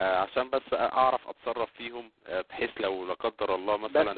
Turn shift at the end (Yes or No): No